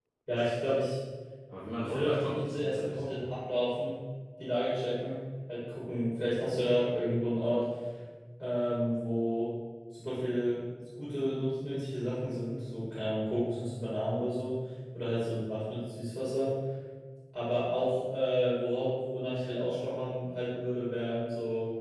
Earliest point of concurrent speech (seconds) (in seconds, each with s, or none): 1.8 s